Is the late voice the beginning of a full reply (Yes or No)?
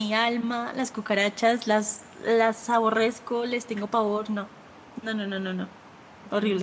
Yes